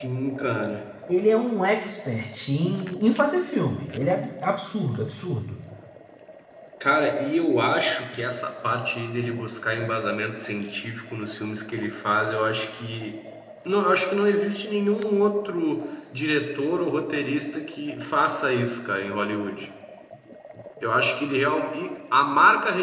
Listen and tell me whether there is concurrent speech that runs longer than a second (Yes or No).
No